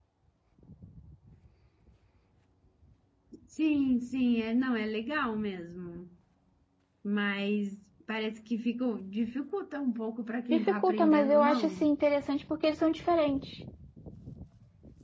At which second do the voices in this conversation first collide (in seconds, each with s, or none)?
10.5 s